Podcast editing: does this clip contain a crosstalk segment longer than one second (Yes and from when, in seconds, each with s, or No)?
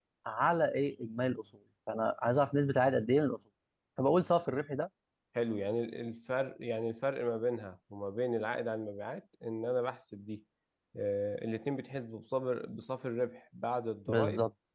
No